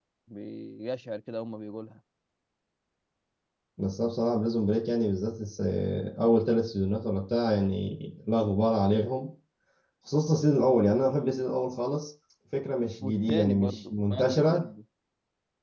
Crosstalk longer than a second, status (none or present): present